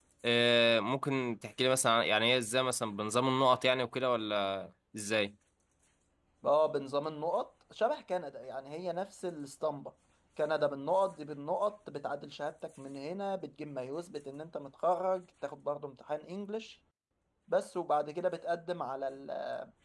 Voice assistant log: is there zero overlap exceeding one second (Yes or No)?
Yes